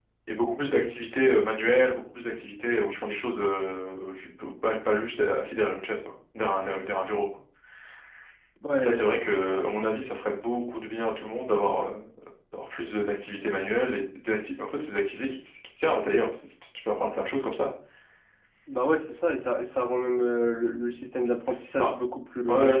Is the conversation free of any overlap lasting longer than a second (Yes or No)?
Yes